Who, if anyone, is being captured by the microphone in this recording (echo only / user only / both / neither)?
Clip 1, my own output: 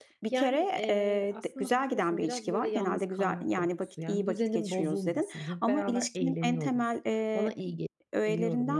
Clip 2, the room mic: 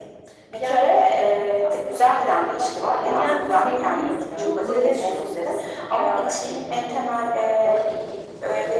both